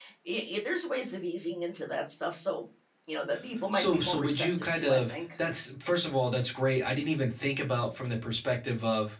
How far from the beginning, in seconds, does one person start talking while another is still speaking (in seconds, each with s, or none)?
3.7 s